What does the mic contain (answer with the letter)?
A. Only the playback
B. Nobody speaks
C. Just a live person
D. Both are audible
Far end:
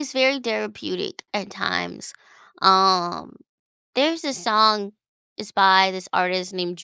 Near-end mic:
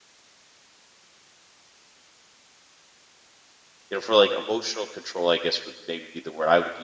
C